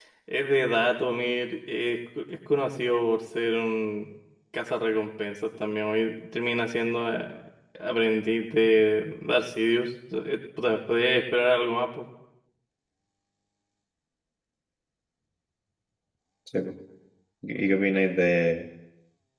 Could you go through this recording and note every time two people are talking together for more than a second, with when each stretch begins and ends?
none

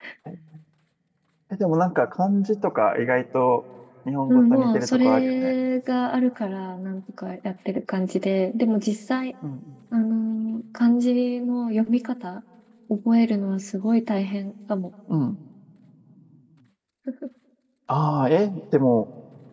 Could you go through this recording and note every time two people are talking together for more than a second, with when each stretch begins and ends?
4.3-5.5

